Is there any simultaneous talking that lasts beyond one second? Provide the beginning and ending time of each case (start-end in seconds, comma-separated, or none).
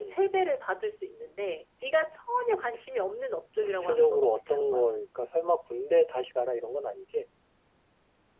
3.6-4.9